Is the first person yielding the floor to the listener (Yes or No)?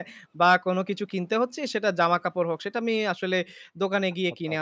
No